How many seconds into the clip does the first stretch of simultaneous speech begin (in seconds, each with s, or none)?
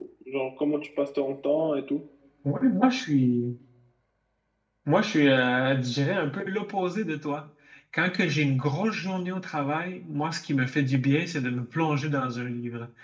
none